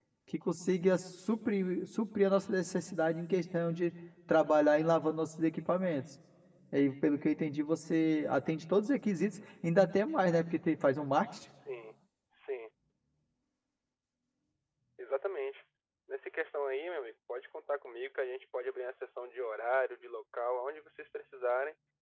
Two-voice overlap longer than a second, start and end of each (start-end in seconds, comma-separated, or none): none